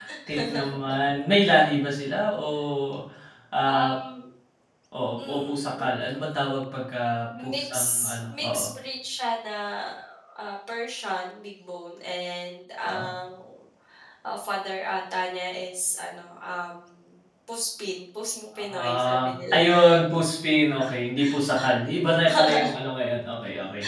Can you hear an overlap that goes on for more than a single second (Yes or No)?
Yes